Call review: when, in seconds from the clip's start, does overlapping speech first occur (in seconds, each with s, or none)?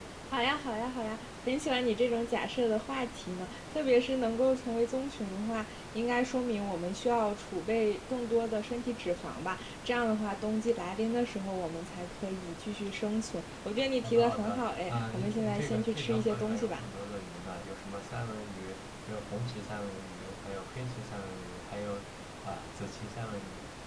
14.0 s